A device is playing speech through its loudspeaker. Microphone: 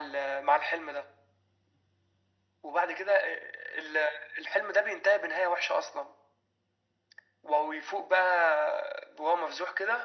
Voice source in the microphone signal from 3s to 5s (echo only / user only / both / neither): echo only